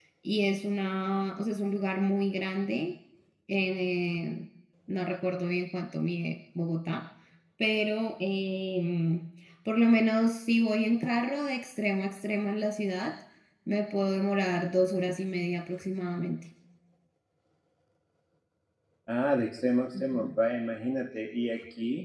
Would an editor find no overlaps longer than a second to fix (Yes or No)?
Yes